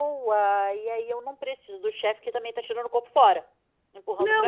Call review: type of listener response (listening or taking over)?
taking over